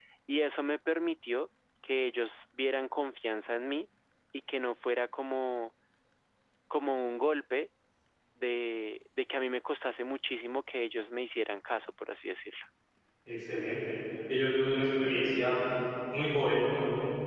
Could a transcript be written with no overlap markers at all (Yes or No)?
Yes